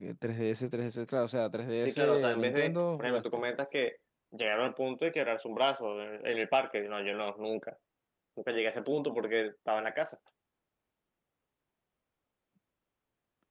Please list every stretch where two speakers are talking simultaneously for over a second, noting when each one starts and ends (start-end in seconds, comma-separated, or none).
1.8-3.4